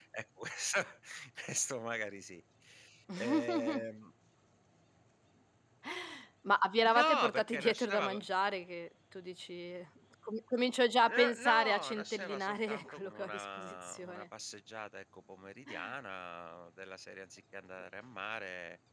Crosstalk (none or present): present